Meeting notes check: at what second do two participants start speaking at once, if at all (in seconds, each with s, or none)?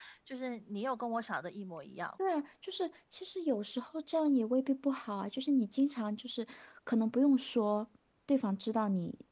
none